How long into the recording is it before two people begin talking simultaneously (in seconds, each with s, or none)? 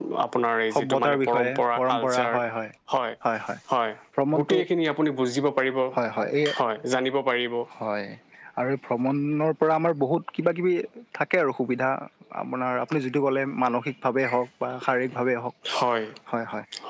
0.7 s